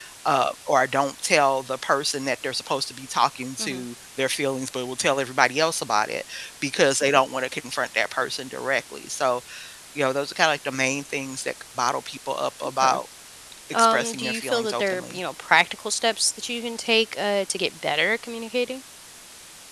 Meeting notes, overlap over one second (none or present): present